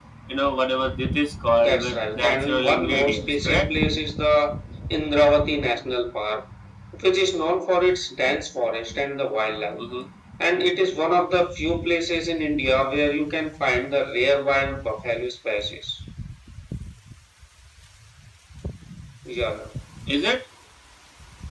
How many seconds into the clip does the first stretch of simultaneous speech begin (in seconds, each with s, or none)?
1.6 s